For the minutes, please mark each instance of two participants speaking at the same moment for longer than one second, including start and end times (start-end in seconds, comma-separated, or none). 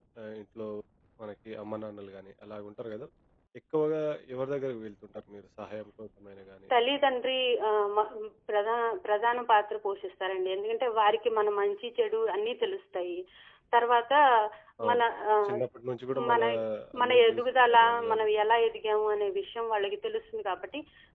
17.0-18.3